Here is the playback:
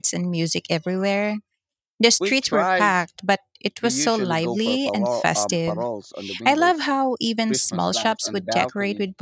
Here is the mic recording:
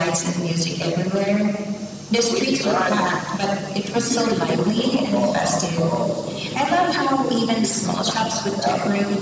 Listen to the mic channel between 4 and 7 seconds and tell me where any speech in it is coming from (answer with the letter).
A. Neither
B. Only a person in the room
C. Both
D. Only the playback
D